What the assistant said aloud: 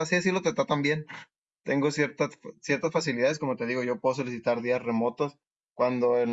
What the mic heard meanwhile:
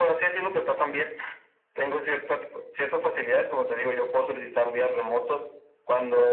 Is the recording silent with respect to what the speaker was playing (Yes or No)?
No